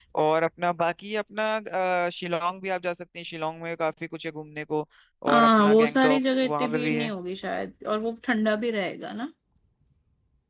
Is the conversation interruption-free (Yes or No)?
No